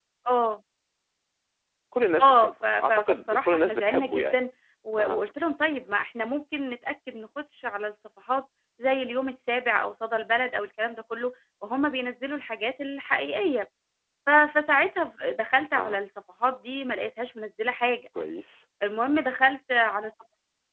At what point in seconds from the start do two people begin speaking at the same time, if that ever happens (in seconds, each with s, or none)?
2.2 s